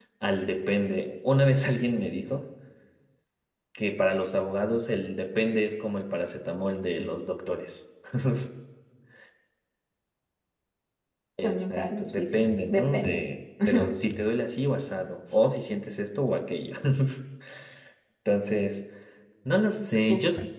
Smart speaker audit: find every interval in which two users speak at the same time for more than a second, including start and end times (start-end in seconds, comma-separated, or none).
11.4-13.2